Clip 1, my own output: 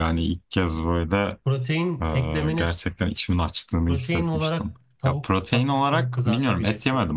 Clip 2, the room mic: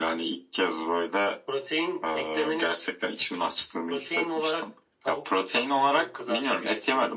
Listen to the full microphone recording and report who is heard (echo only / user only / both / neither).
echo only